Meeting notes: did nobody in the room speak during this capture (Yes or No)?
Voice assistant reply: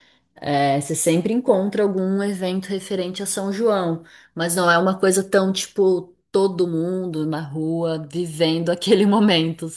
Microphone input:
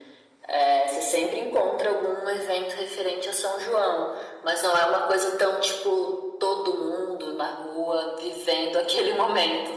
Yes